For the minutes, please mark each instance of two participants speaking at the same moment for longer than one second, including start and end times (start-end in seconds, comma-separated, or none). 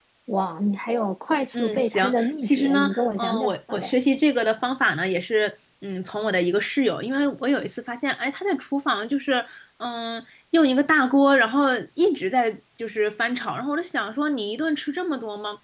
1.5-3.9